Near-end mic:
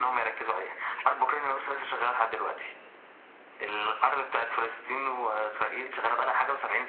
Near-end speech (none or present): none